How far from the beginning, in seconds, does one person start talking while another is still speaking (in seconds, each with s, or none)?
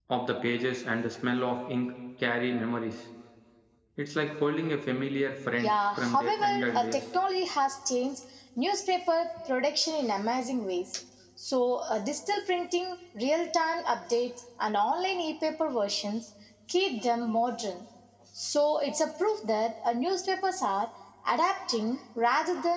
5.6 s